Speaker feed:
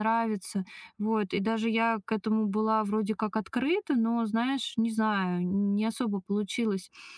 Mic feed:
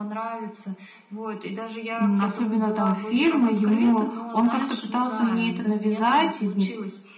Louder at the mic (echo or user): user